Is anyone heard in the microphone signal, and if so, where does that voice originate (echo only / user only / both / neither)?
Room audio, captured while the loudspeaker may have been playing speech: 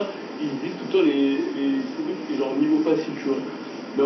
echo only